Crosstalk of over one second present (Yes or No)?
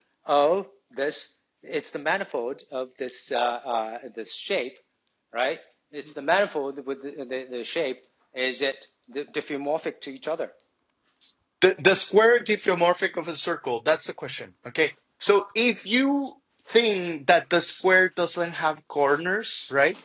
No